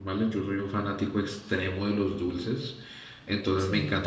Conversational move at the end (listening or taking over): listening